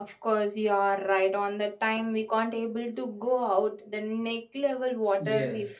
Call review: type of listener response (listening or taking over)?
taking over